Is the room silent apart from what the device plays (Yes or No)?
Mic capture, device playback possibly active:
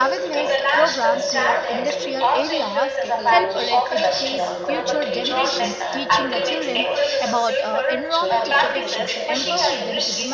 No